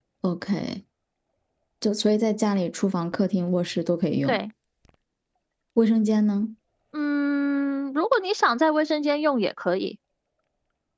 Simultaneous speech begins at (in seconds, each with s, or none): none